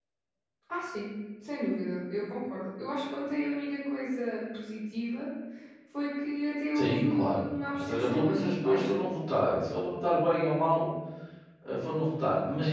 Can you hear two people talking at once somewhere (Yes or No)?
Yes